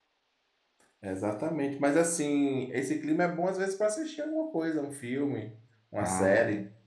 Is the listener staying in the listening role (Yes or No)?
No